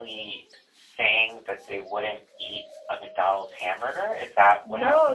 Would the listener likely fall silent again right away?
No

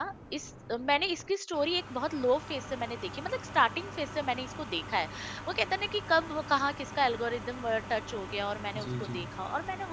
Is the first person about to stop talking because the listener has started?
No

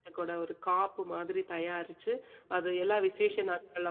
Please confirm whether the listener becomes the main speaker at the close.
No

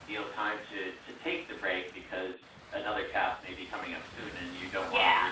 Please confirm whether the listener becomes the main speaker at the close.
Yes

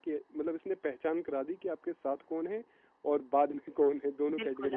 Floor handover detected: Yes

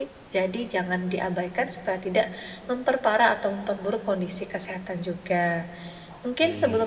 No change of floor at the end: Yes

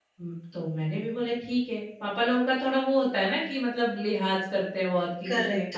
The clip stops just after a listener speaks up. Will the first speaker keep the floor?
No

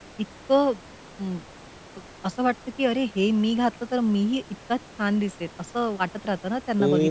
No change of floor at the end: No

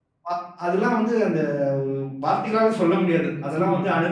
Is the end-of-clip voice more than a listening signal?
No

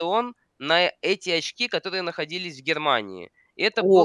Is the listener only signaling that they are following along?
No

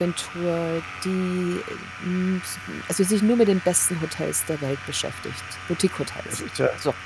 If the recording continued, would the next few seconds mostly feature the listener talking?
Yes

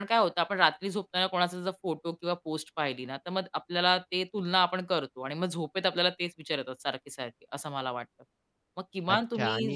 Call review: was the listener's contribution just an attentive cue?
No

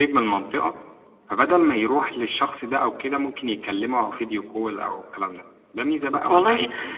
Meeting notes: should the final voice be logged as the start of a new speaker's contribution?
Yes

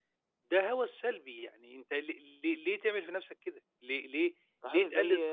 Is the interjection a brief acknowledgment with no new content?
No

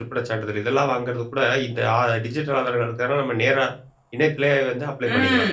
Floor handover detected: Yes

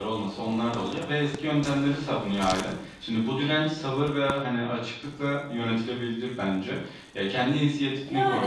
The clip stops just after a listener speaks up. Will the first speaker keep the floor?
Yes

